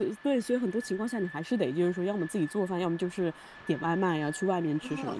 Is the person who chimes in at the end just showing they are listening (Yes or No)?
Yes